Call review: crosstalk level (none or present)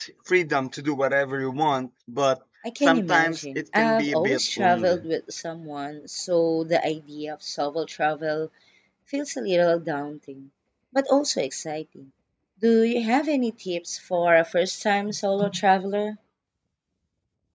present